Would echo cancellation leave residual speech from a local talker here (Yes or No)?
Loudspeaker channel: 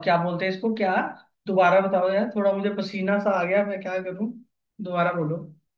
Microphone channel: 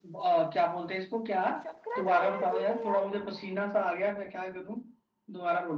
Yes